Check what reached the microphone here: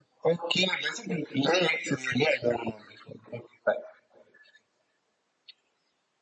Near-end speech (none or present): none